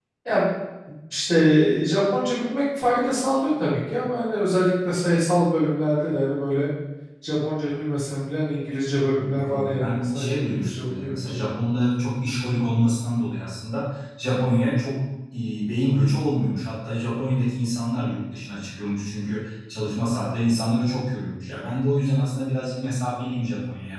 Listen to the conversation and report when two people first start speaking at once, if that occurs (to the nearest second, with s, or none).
9 s